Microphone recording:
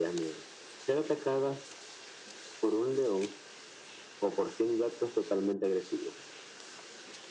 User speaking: No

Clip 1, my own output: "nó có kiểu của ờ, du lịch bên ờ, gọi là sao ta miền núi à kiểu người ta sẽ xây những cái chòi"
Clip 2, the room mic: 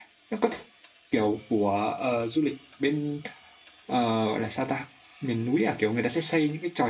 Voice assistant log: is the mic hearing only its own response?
Yes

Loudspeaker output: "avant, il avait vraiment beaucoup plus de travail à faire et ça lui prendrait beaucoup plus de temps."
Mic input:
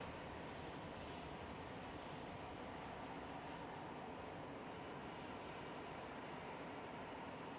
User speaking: No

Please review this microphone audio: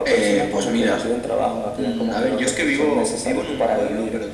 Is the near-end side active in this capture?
No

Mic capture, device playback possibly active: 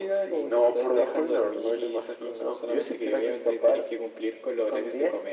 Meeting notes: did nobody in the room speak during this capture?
Yes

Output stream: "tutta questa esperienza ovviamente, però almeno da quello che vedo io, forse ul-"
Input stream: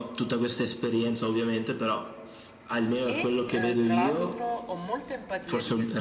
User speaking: Yes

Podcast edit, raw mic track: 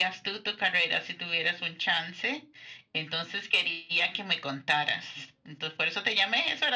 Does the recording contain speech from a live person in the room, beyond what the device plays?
No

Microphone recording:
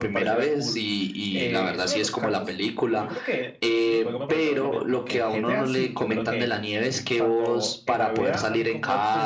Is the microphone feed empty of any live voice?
No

